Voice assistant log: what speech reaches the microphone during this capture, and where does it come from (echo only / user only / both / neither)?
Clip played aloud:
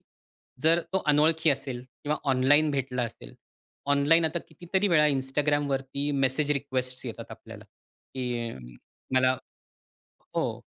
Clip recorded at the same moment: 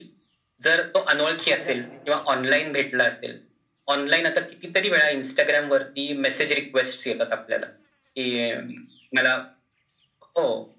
both